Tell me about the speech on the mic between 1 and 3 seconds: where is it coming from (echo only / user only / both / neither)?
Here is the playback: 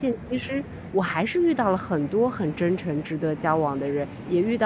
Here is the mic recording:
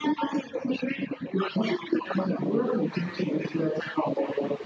echo only